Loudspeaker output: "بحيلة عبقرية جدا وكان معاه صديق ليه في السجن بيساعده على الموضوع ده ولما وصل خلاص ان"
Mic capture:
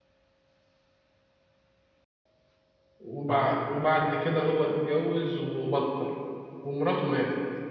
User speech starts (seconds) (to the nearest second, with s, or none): 3 s